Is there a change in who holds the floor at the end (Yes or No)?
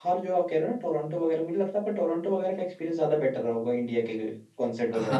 Yes